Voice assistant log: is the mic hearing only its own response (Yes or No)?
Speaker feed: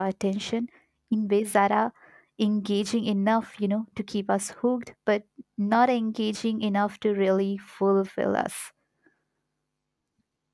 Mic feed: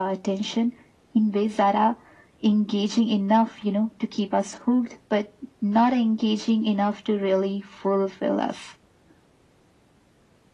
Yes